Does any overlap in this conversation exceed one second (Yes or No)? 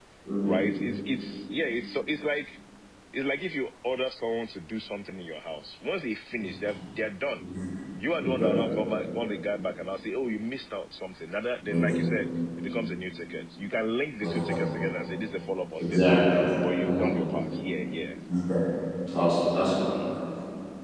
No